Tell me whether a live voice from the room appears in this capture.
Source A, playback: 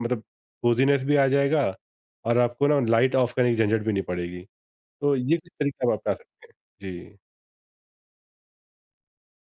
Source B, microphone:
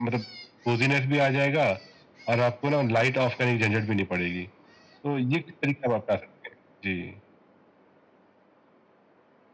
No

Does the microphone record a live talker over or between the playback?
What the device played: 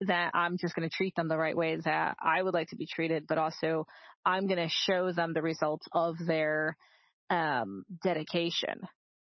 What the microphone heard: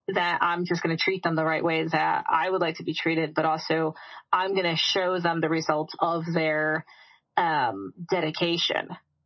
No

